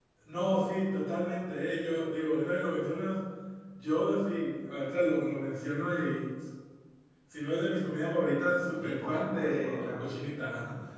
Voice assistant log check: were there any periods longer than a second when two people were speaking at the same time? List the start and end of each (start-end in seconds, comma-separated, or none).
8.8-10.1